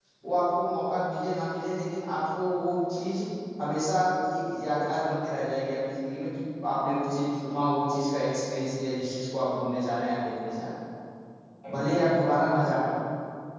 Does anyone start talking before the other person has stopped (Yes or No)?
No